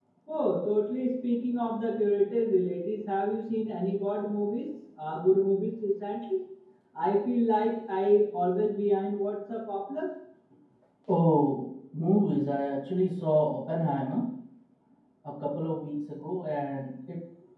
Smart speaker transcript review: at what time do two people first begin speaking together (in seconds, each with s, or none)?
none